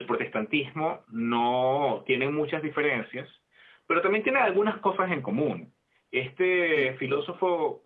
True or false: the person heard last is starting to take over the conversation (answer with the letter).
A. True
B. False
B